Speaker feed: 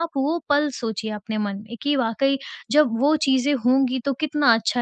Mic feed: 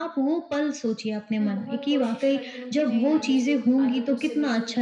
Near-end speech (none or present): present